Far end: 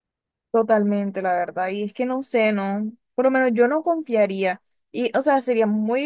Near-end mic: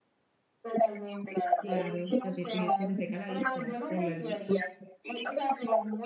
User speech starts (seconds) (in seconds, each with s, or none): 1.6 s